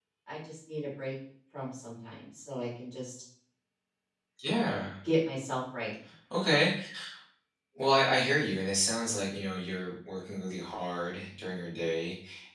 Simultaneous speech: No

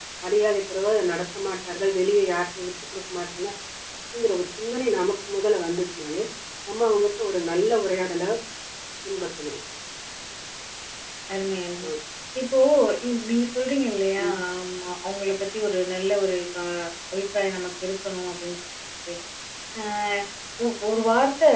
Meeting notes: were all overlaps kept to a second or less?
Yes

